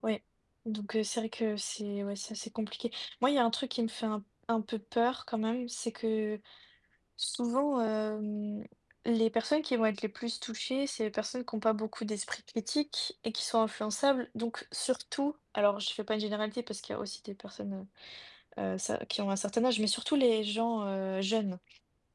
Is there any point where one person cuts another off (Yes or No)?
No